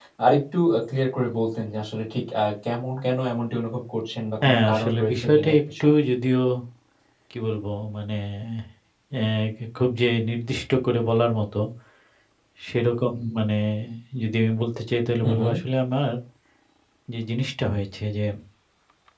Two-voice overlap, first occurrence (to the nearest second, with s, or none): 4 s